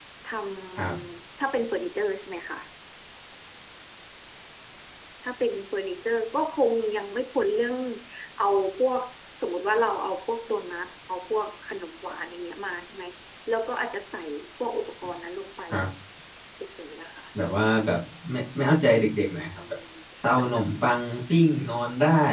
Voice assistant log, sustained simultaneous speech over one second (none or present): none